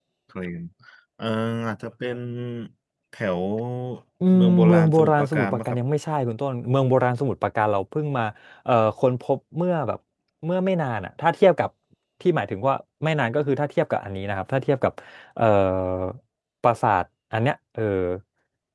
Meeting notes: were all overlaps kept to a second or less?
No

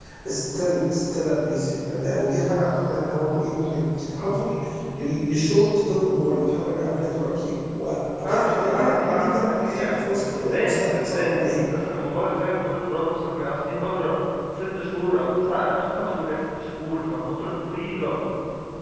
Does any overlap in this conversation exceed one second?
Yes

